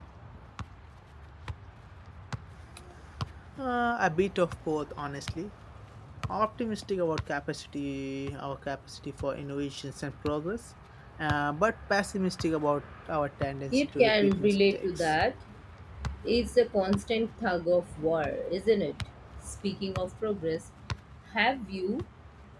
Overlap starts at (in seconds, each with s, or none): 13.7 s